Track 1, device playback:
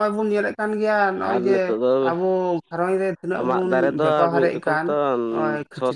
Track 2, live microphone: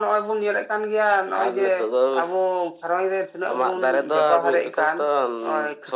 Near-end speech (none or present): none